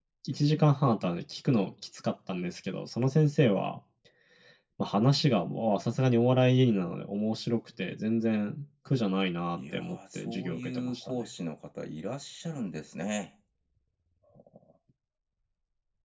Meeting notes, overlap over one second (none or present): present